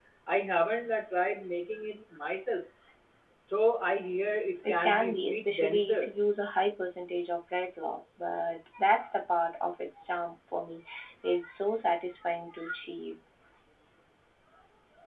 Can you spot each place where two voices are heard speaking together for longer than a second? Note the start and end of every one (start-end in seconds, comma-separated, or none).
4.7-6.1